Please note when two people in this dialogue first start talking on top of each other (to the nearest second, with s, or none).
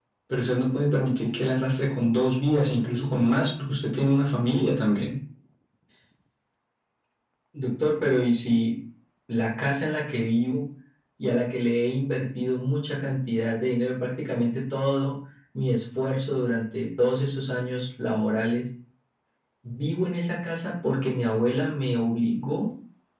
none